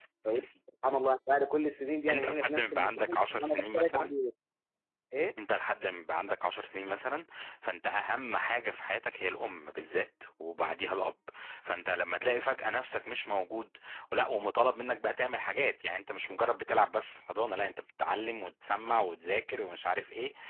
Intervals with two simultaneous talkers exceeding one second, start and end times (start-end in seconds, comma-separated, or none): 2.1-4.1